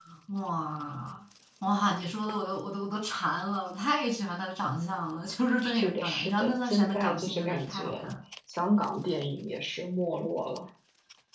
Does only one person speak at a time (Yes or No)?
No